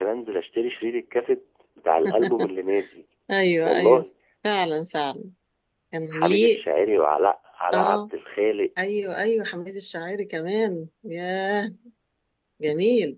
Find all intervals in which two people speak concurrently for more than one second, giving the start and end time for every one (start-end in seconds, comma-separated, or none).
none